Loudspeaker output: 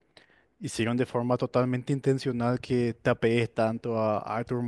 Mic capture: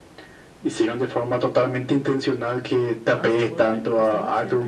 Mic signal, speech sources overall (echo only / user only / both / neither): both